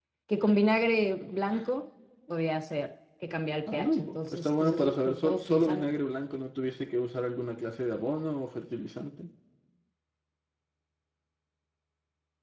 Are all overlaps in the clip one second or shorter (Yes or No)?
No